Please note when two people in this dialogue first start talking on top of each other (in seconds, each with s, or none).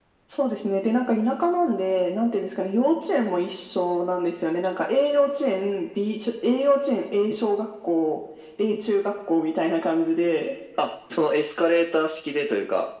none